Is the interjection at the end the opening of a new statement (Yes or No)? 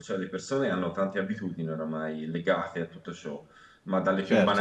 Yes